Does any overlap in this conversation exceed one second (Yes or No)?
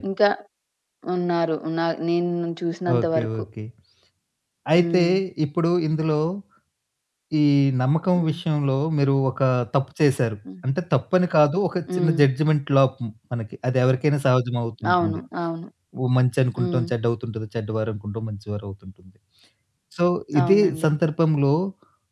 No